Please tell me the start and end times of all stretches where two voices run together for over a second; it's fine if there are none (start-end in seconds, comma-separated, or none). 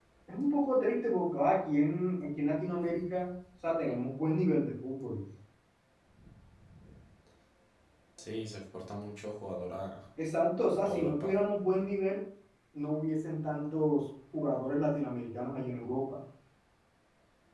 none